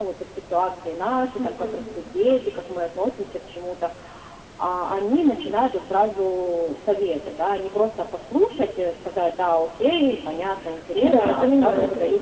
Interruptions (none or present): present